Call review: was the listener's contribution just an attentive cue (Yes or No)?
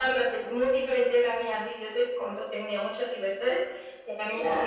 Yes